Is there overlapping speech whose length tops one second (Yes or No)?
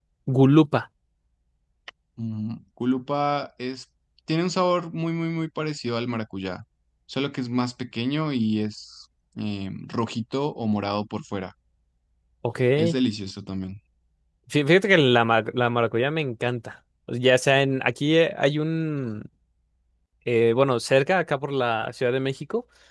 No